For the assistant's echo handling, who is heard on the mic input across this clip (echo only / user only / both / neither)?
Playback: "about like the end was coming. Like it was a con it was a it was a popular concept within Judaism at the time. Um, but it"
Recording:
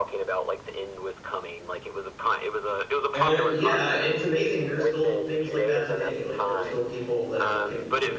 both